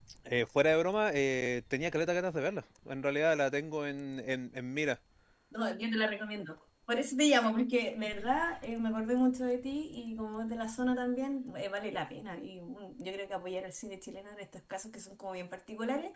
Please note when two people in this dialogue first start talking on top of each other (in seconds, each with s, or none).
none